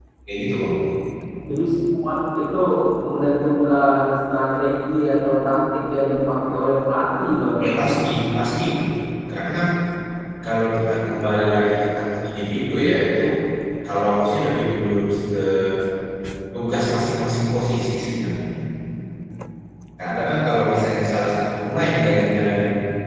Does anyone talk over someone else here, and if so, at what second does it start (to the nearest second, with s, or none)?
none